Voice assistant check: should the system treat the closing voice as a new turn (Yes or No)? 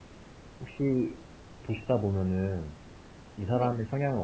No